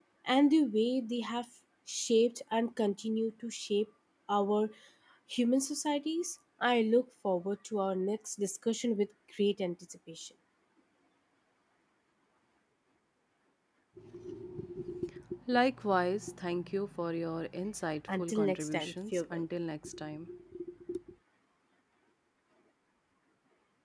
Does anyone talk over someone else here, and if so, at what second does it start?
18.1 s

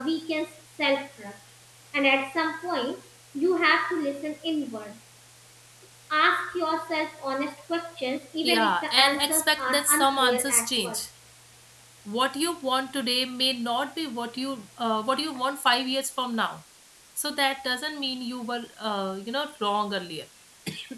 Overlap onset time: 8.4 s

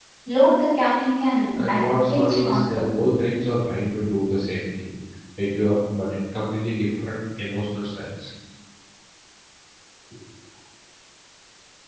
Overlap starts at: 1.5 s

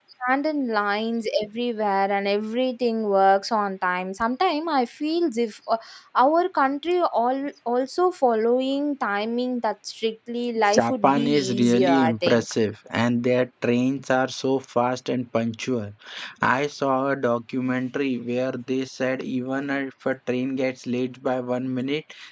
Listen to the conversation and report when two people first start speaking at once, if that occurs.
10.7 s

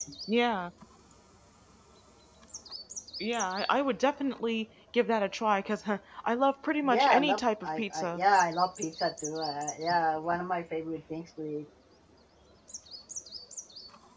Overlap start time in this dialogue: 6.9 s

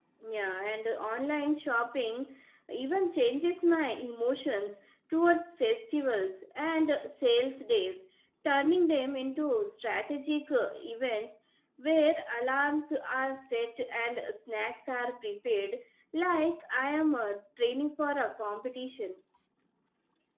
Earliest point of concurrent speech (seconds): none

